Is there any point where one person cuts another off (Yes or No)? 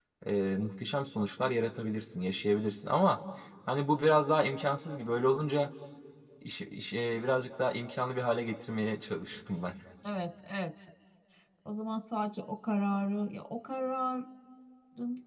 No